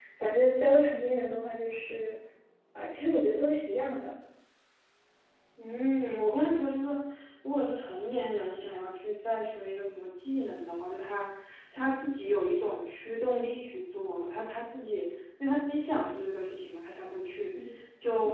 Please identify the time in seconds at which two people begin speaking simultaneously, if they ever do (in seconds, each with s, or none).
none